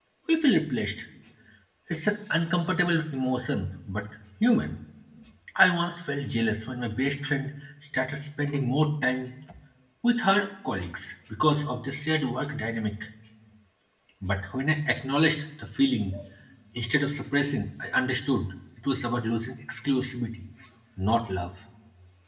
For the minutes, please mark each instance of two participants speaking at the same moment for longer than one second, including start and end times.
none

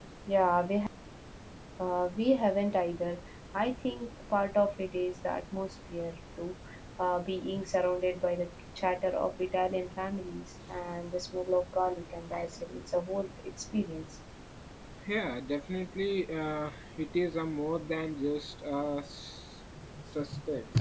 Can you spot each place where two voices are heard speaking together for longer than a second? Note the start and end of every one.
none

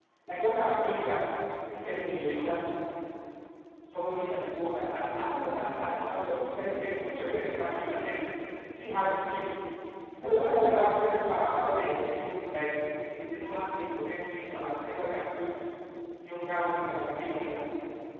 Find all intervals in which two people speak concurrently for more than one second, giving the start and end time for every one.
none

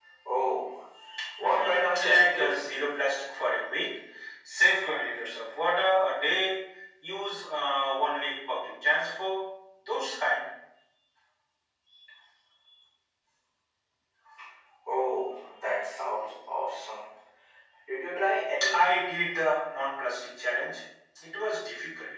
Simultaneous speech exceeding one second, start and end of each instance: 1.4-2.7

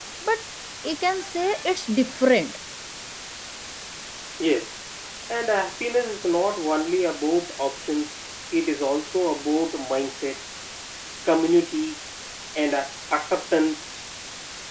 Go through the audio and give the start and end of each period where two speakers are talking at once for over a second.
none

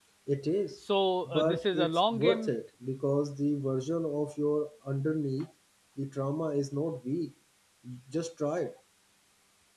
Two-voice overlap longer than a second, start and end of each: 1.3-2.5

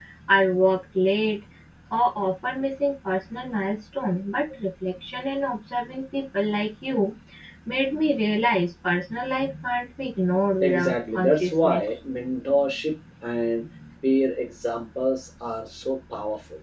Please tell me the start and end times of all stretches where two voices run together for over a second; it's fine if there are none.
10.6-11.8

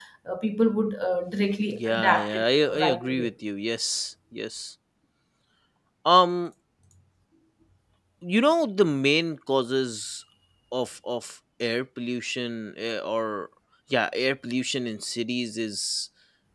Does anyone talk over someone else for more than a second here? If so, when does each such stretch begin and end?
1.7-3.3

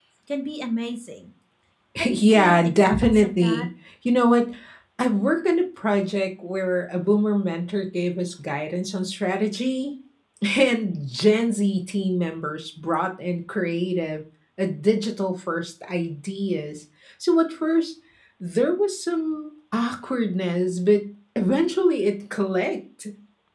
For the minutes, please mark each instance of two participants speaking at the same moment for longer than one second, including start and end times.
2.0-3.7

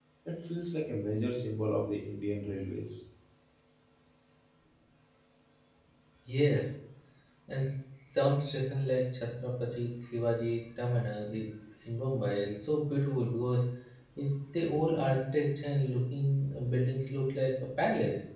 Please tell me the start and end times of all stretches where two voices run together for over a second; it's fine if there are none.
none

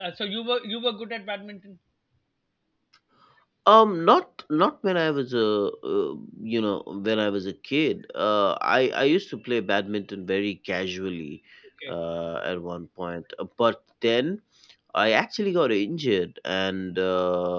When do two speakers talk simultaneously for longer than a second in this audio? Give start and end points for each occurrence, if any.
none

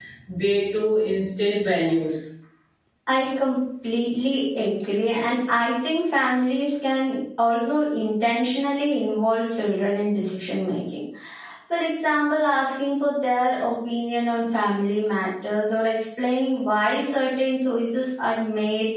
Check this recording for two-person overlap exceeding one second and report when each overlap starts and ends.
none

